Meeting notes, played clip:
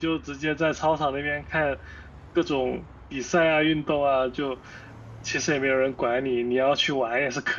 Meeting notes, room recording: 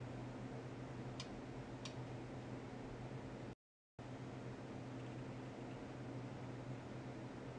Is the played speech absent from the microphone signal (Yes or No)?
Yes